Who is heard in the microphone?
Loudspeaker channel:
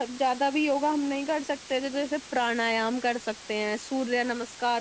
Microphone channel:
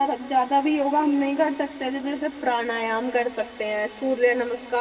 echo only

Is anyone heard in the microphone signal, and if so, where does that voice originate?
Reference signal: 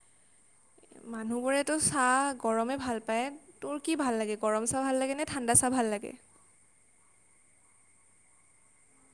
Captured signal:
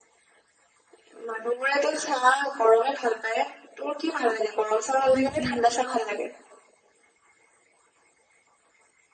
both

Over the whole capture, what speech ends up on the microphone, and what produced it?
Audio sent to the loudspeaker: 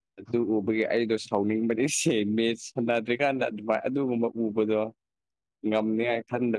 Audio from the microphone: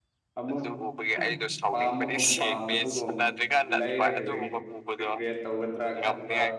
both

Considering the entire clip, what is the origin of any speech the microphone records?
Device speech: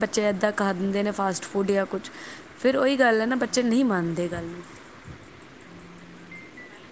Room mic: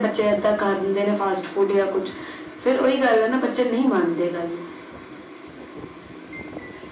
echo only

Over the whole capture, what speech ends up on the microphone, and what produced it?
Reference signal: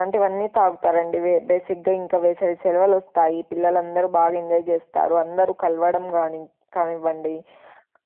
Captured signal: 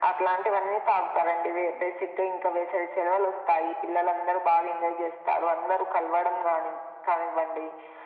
echo only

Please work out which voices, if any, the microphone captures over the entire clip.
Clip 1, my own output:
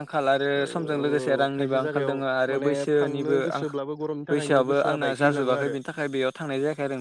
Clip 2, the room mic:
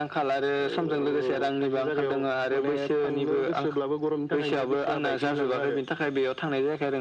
echo only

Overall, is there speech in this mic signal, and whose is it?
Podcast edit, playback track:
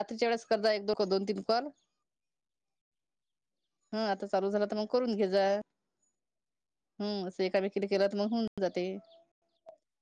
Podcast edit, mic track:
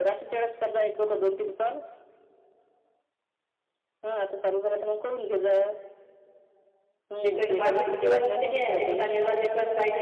both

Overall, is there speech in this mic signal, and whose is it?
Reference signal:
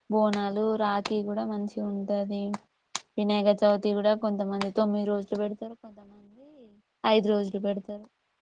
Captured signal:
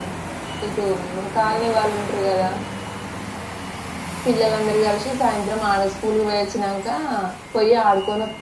user only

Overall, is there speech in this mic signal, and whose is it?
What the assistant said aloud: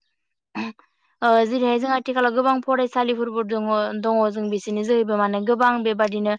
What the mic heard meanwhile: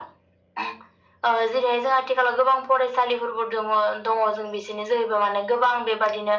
echo only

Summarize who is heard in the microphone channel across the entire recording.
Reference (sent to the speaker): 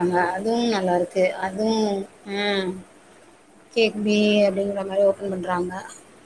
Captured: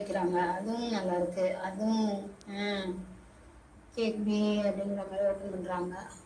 echo only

